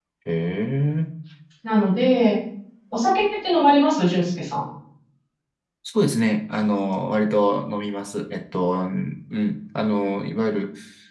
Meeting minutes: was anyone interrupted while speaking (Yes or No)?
No